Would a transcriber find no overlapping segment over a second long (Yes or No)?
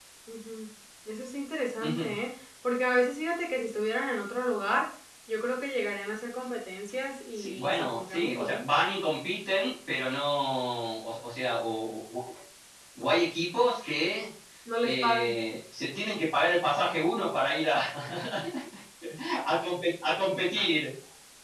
No